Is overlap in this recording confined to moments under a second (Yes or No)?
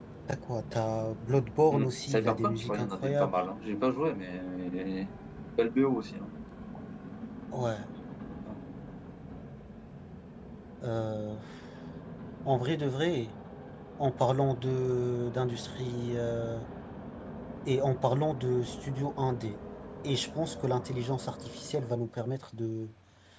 No